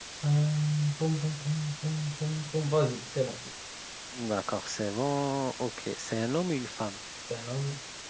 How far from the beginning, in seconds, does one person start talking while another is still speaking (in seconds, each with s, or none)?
none